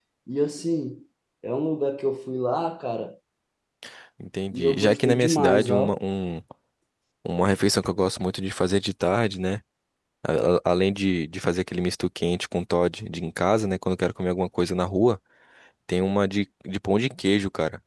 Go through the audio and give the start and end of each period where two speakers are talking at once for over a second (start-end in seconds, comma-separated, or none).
4.5-6.0